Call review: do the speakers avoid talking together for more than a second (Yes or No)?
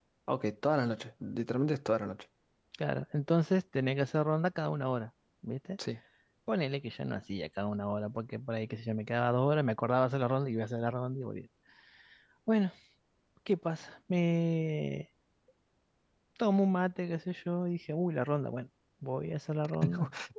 Yes